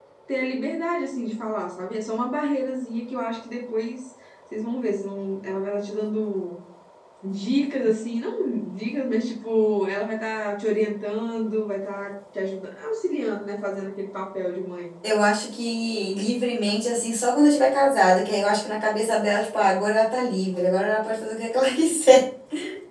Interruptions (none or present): none